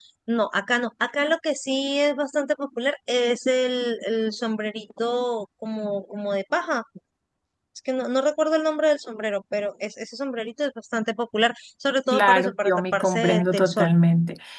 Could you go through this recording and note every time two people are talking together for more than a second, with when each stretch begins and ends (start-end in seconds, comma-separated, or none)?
12.1-13.9